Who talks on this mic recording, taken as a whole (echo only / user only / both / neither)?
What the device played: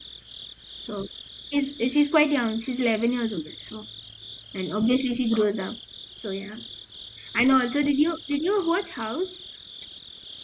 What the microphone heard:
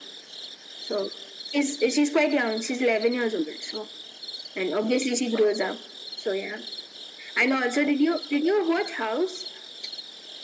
echo only